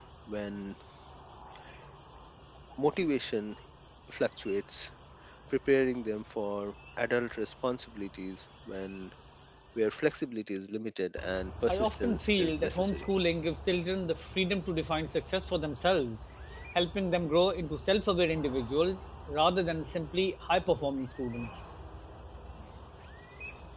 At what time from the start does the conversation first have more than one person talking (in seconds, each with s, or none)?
11.7 s